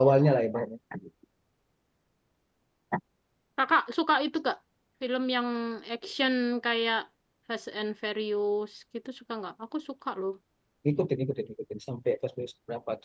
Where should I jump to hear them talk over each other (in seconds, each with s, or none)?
none